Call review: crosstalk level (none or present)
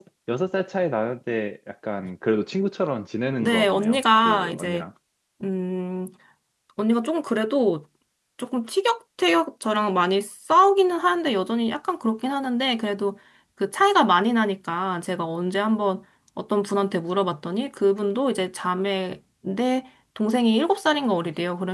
present